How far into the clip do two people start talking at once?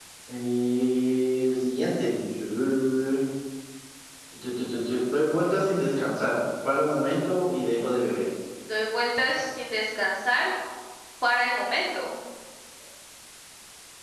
none

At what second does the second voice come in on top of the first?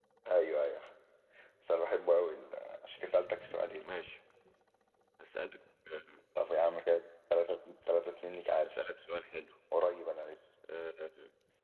none

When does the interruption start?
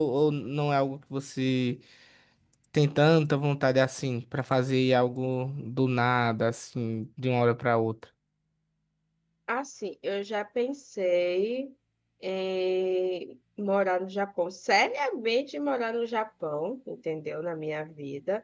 none

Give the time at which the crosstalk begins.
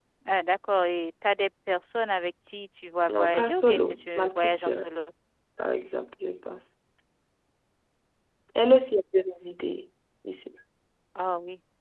3 s

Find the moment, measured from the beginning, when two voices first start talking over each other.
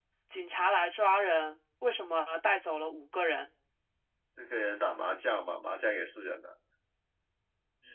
none

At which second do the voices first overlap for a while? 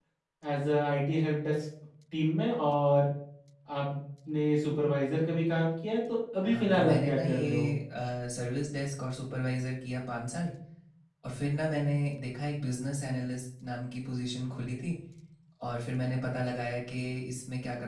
6 s

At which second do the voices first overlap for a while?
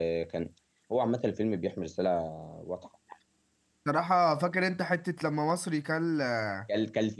none

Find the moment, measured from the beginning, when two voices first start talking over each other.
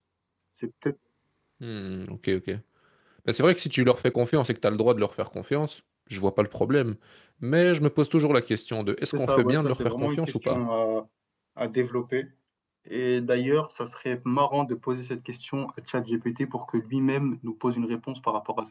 9 s

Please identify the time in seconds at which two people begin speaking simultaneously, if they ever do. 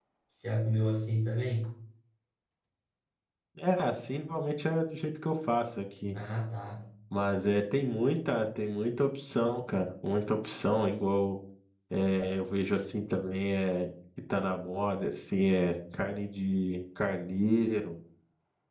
none

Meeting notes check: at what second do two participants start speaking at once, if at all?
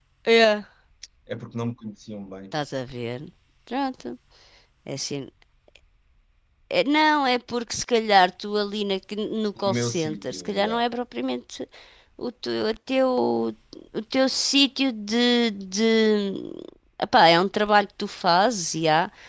10 s

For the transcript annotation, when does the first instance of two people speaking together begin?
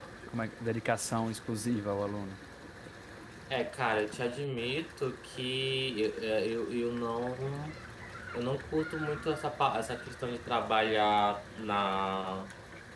none

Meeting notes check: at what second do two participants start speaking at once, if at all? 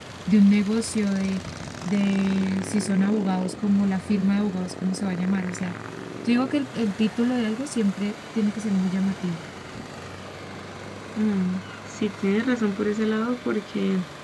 none

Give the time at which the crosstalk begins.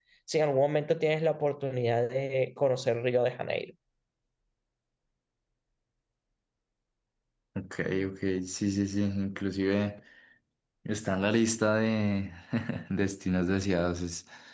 none

